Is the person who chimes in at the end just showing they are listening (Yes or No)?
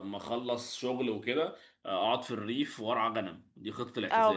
No